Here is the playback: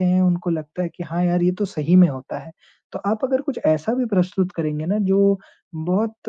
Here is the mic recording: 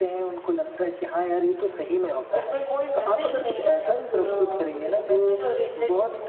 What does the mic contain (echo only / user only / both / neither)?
both